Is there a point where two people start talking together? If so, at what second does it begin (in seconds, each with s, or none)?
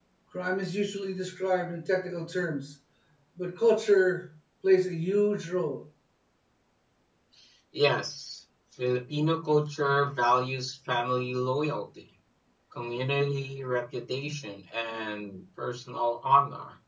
none